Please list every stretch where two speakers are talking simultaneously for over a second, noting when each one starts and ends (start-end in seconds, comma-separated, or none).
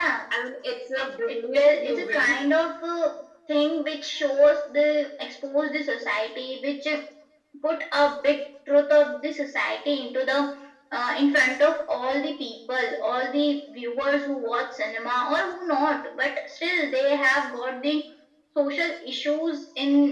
1.0-2.5